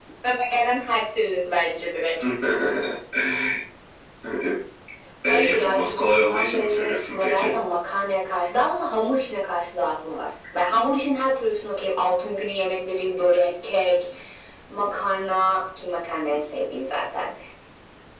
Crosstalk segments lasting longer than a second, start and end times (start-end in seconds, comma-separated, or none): 5.3-7.5